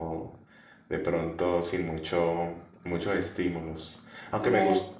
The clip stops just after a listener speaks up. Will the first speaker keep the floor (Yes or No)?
Yes